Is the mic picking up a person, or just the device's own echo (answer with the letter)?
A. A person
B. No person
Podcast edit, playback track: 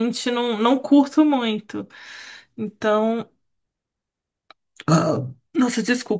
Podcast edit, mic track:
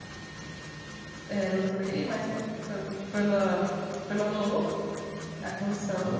A